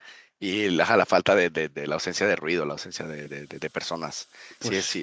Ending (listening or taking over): listening